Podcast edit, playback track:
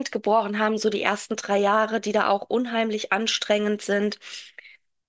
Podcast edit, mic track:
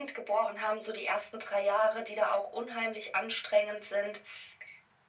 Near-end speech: none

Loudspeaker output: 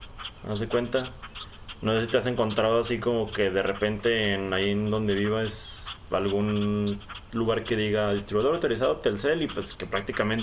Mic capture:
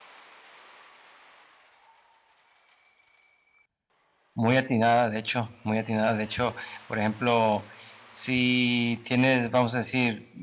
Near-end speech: present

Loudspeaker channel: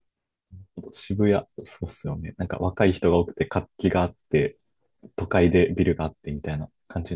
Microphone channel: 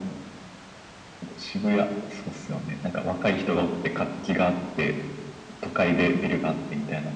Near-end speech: none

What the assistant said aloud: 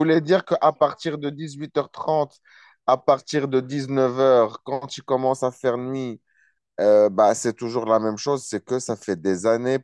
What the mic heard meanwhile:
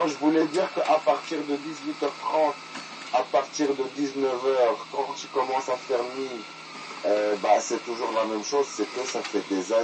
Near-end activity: none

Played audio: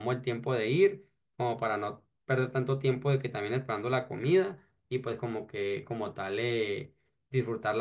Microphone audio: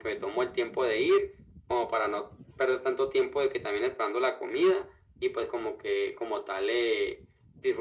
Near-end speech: none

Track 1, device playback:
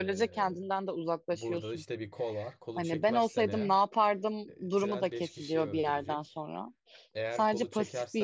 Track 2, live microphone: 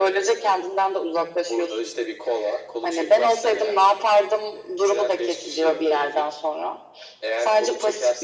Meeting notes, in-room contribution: none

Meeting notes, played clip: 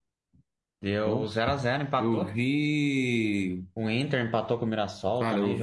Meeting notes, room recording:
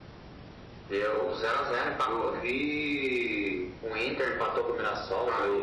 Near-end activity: none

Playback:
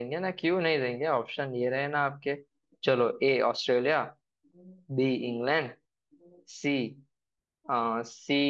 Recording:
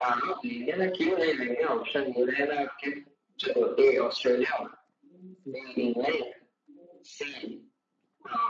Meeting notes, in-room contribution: none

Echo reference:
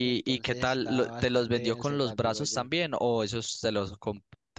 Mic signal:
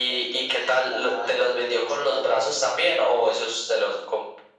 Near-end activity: none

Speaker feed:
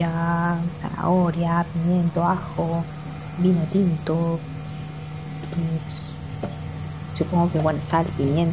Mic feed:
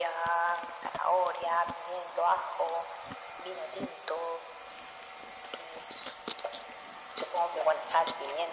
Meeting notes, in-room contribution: none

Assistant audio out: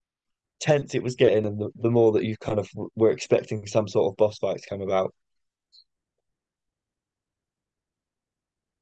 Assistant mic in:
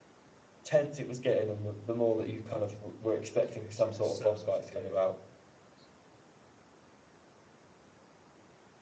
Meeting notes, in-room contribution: present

